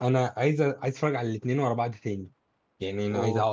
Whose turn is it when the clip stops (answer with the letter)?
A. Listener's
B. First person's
B